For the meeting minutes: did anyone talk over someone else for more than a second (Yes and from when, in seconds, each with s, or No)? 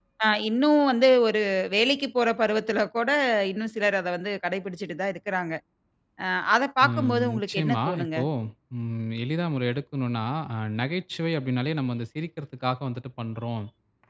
Yes, from 6.9 s